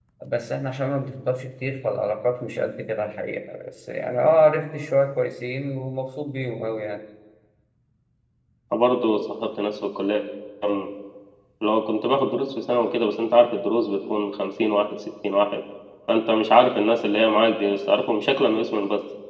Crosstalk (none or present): none